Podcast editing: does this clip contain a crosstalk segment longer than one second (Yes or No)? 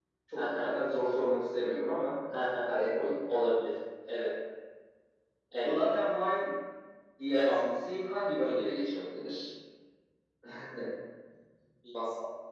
No